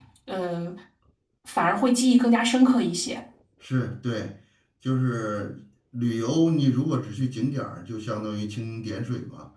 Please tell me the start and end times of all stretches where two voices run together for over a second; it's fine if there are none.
none

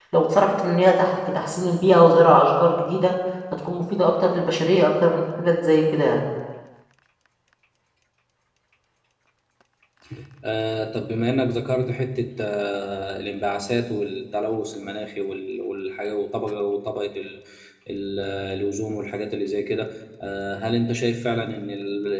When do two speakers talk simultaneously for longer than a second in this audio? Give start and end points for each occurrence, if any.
none

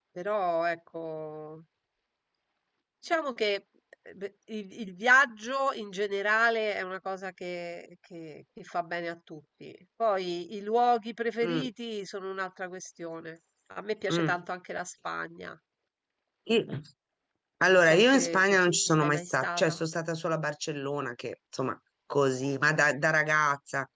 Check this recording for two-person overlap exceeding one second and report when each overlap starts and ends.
17.8-19.7

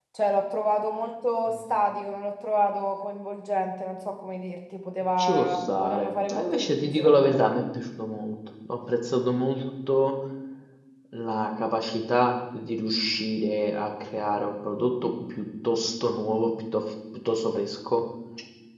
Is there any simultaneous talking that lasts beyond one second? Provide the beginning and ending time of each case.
5.2-7.4

